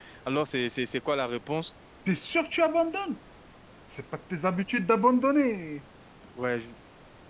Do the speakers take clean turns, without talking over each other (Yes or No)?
Yes